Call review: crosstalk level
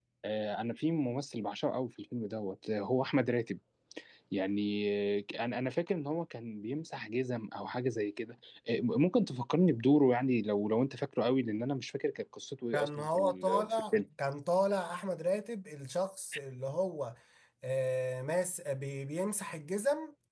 present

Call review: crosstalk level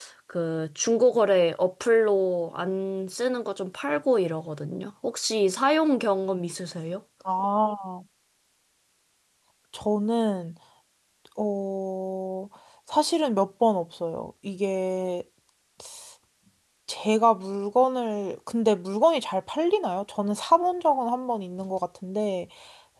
none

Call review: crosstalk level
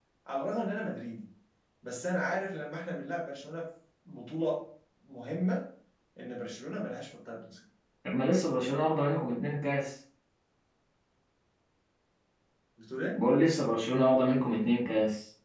none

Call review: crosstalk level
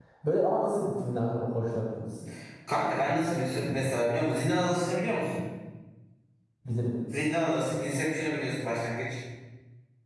none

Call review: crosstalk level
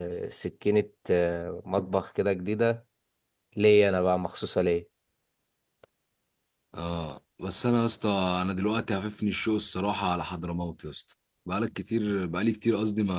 none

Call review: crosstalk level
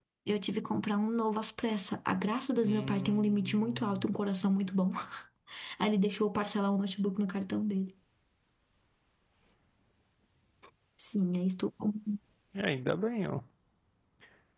present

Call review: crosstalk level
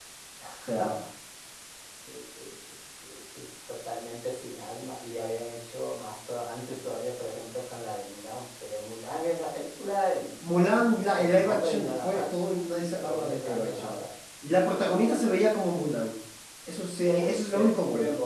present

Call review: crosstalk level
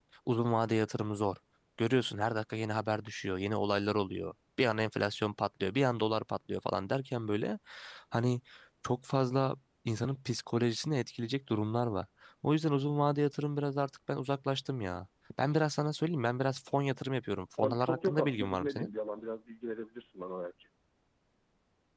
present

